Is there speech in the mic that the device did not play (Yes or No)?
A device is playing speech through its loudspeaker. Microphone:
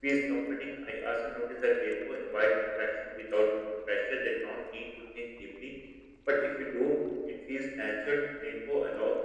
No